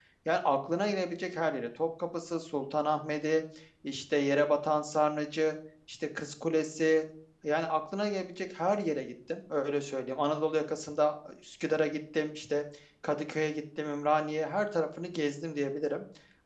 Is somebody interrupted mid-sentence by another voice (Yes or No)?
No